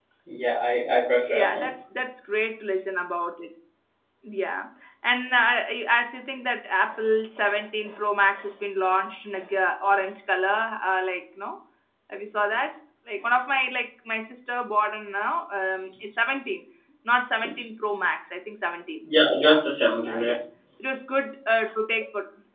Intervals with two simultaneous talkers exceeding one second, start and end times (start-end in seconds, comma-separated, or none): none